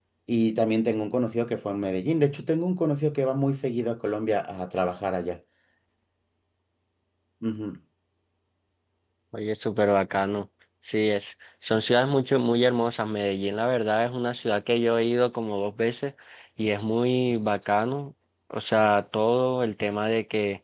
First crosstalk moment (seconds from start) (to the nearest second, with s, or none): none